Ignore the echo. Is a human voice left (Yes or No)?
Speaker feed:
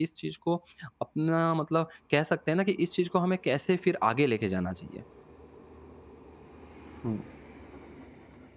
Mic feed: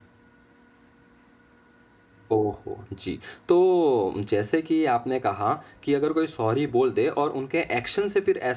Yes